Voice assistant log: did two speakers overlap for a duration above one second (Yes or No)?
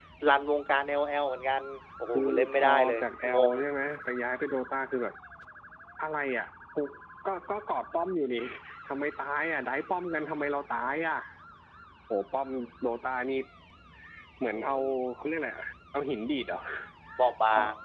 Yes